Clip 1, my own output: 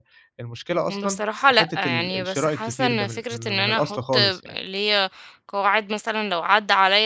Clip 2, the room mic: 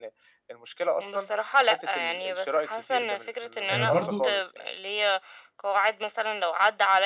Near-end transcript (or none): آآ برضه